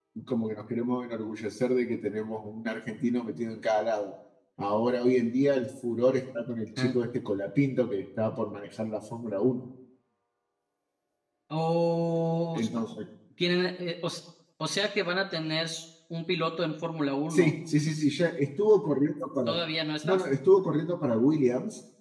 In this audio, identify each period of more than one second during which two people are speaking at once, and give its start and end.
none

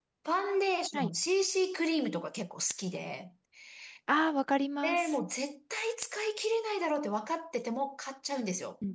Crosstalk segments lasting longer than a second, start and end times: none

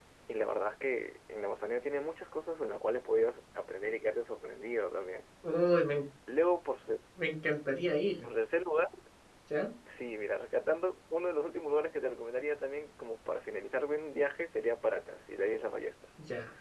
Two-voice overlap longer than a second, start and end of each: none

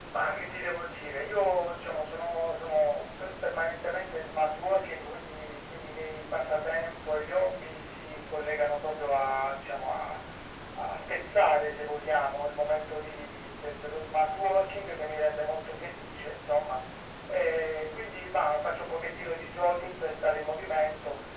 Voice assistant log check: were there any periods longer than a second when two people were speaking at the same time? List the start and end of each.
none

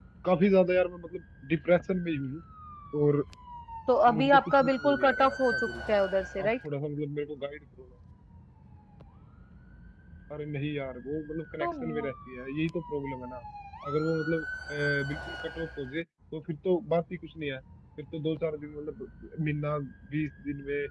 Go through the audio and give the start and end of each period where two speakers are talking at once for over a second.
4.2-5.5

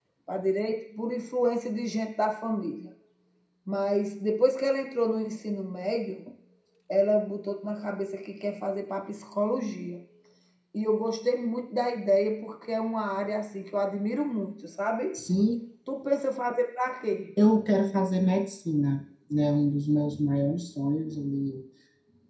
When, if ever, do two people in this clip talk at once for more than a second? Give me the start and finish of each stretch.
none

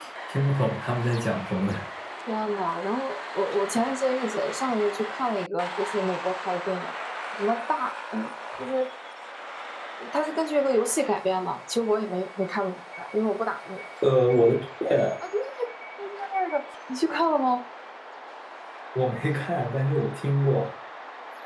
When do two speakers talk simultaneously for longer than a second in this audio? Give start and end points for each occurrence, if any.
none

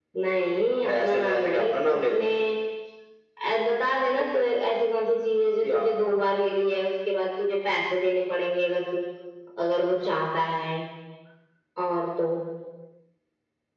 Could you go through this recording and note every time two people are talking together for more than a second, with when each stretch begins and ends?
0.8-2.2

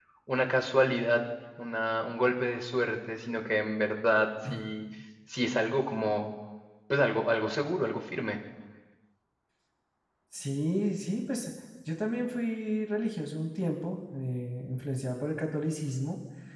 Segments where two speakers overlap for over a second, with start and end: none

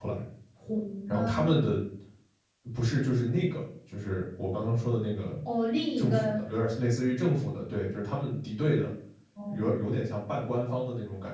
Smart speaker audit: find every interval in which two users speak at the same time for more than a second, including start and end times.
none

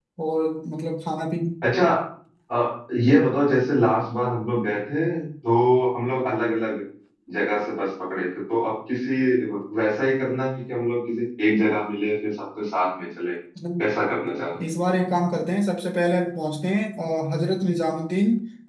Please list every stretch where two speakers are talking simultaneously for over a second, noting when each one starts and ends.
none

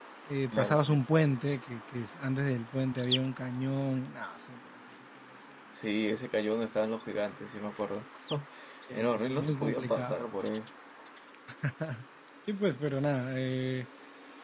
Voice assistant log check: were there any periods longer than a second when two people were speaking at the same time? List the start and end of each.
8.9-10.2

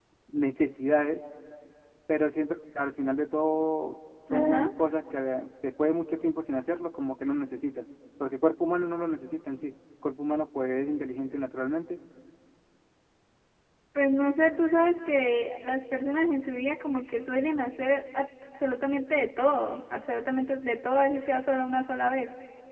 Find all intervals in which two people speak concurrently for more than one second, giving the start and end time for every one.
none

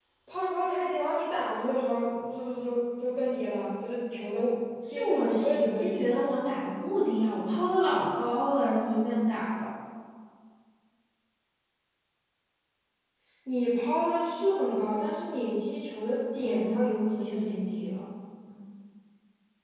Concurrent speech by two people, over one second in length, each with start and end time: 4.9-6.3, 16.3-18.0

